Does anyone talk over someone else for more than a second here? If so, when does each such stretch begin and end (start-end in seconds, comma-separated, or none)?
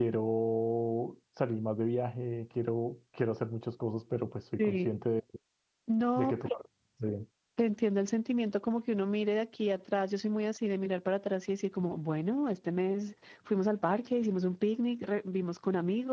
none